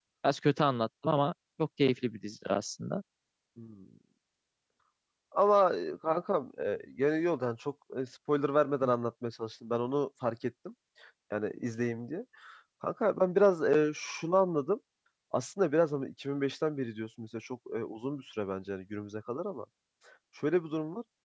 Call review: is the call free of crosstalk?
Yes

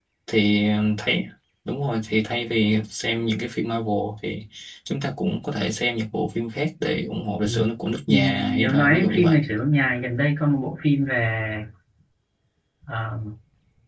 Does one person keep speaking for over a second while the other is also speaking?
Yes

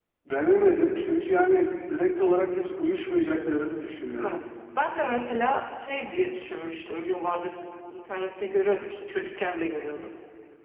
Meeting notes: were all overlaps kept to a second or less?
Yes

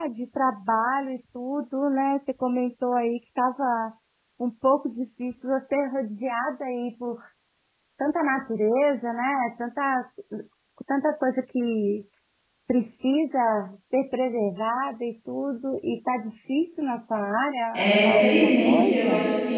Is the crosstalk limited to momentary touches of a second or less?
No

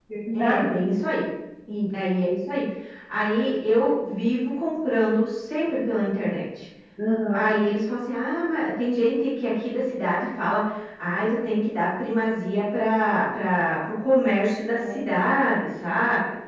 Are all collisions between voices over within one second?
Yes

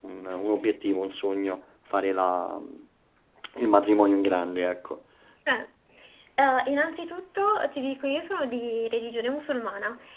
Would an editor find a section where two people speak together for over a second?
No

